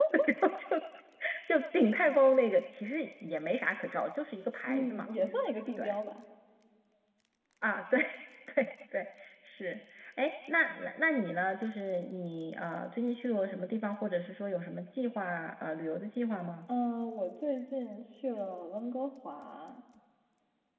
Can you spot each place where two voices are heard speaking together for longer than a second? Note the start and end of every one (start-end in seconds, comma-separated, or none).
none